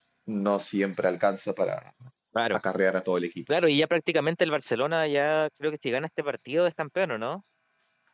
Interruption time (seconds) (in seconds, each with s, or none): none